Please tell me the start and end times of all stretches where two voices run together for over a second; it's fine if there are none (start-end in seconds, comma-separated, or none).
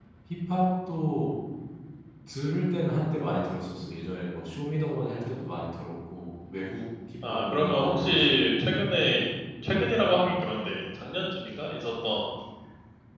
7.3-8.7